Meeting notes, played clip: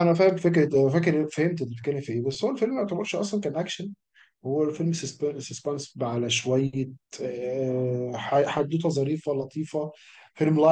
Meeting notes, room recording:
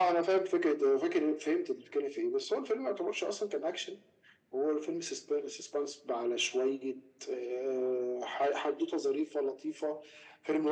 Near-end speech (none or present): none